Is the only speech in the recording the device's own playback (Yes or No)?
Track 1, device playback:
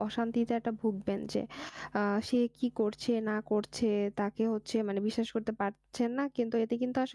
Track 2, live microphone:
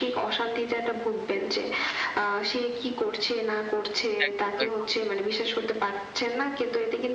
No